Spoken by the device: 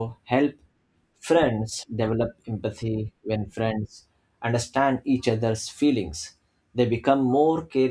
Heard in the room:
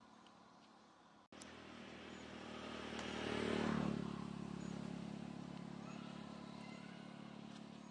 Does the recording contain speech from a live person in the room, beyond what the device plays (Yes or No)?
No